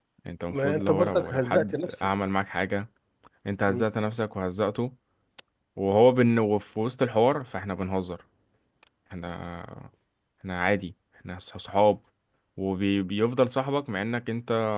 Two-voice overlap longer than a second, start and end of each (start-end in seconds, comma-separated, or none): 0.5-2.1